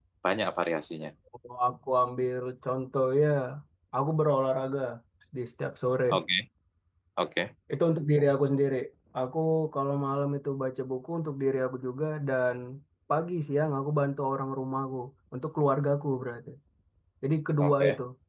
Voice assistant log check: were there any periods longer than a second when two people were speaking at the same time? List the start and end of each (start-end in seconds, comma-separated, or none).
none